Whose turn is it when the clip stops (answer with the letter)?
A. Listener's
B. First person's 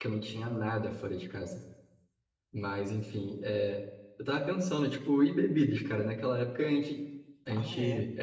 B